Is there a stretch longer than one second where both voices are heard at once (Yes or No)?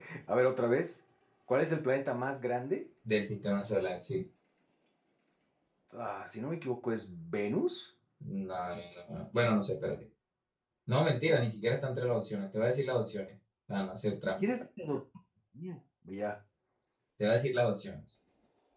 No